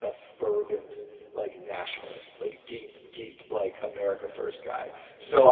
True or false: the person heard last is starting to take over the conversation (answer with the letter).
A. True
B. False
B